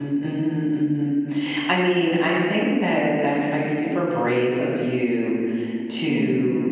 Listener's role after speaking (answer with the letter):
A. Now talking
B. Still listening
B